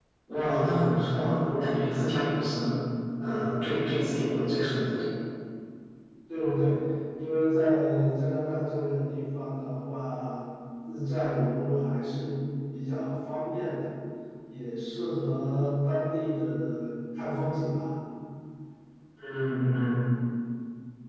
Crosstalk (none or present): none